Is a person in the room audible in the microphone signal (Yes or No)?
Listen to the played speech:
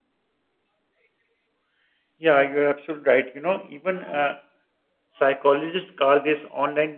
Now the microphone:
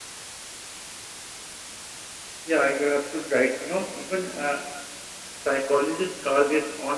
No